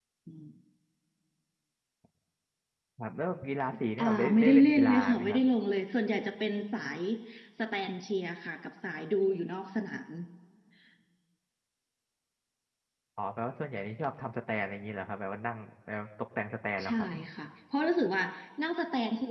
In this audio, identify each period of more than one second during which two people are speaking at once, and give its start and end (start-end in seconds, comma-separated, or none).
4.0-5.4